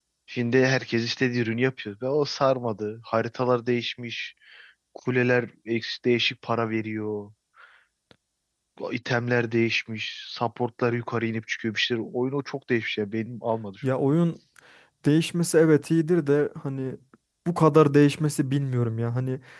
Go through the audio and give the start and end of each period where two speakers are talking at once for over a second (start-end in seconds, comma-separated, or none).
none